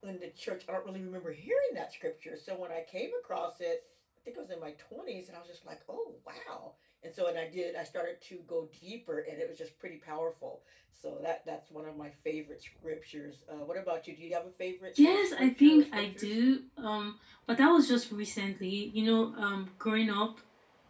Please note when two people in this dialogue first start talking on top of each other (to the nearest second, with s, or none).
15 s